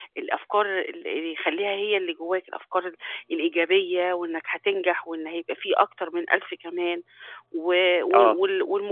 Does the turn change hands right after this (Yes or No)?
No